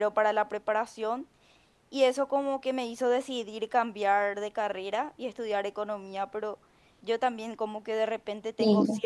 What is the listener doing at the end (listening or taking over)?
listening